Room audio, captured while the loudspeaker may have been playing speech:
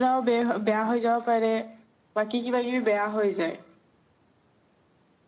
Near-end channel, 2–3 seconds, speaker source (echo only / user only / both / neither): echo only